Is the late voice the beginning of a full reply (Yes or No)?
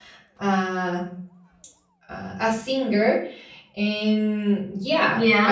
No